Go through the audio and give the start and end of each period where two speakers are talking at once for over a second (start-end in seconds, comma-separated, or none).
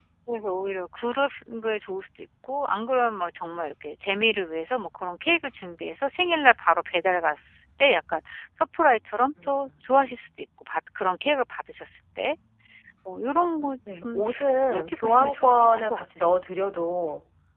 14.7-16.1